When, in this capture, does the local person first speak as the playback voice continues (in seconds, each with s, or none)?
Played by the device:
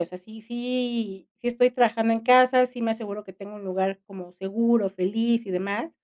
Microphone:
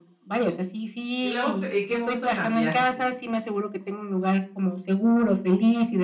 1.2 s